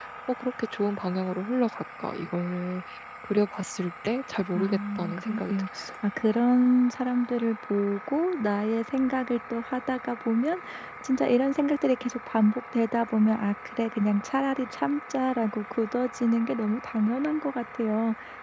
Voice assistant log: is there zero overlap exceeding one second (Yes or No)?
No